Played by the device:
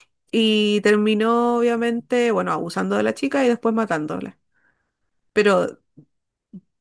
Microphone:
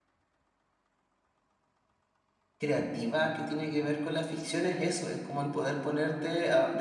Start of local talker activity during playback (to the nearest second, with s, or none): 3 s